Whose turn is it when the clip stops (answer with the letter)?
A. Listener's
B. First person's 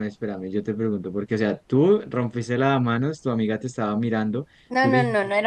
A